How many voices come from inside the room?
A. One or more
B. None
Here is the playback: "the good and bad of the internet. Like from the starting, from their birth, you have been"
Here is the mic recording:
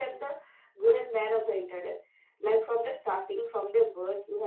B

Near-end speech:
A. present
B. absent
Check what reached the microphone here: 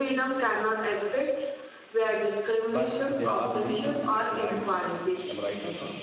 A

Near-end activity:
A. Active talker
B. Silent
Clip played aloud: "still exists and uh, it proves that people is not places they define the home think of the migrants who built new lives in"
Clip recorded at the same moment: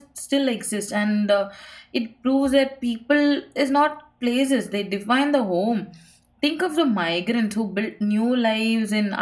B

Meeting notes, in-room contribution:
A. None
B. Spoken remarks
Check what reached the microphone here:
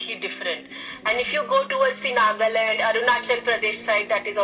A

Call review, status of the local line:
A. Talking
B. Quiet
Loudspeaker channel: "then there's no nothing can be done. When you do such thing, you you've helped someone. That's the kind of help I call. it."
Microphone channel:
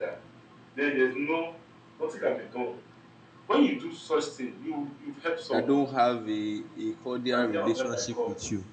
A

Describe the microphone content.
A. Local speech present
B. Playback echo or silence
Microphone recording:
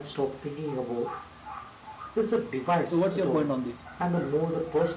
A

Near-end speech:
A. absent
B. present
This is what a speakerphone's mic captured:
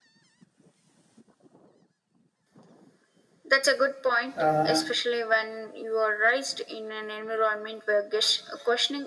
B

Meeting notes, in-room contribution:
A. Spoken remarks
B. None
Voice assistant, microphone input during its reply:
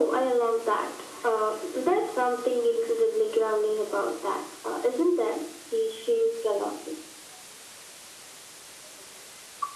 B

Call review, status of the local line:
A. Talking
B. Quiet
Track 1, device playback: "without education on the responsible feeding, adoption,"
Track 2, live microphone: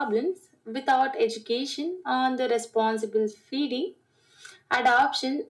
B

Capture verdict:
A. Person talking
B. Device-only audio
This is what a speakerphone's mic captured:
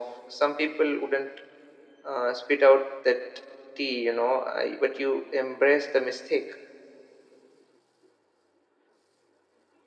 B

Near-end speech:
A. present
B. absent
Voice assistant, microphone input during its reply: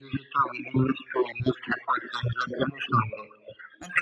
B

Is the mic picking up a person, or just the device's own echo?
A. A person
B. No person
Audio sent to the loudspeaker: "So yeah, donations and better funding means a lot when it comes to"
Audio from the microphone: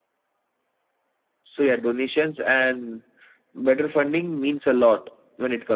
B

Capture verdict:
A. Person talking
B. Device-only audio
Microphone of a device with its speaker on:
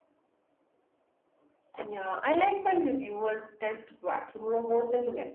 B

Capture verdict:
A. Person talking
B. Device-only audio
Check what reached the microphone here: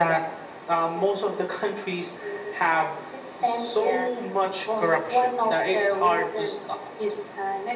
B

